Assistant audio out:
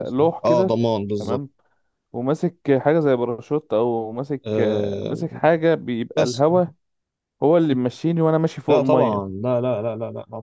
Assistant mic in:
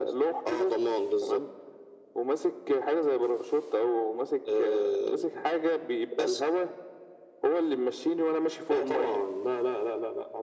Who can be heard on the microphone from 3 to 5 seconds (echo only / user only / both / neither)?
echo only